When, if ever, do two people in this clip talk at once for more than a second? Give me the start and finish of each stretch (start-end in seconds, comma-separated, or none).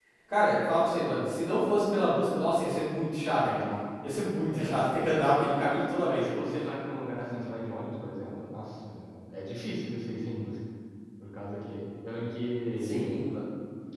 none